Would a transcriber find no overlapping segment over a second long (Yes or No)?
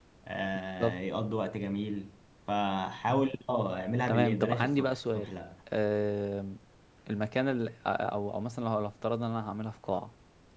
No